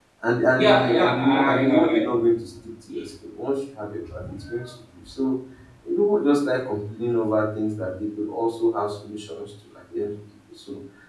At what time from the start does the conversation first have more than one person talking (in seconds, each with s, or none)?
0.6 s